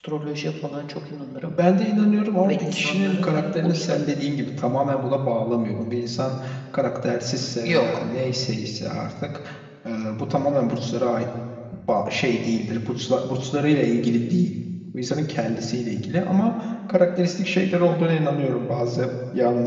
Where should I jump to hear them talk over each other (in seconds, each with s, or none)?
2.5 s